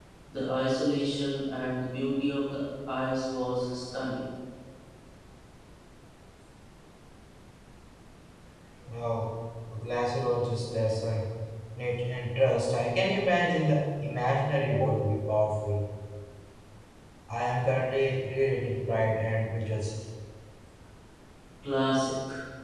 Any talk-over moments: No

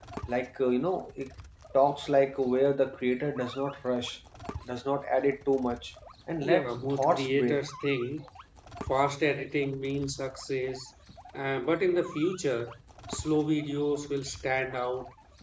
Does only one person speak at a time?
No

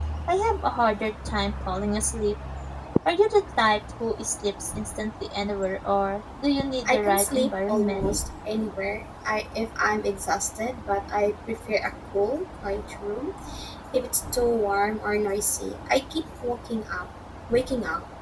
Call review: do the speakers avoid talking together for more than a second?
No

